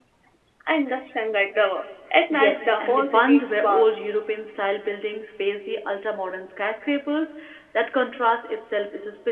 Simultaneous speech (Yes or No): Yes